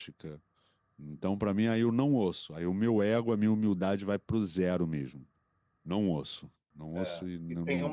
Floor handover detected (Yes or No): Yes